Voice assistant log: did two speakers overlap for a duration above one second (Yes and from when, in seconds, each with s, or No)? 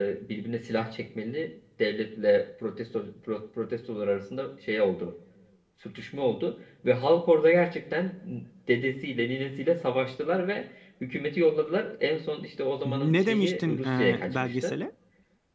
Yes, from 12.8 s